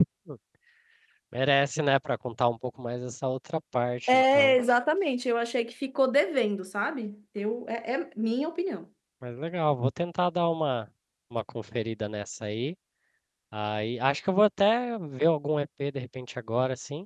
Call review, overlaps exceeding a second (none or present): none